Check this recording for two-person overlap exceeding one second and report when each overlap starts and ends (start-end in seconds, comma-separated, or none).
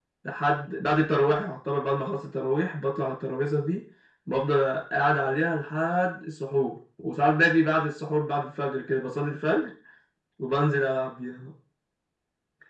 none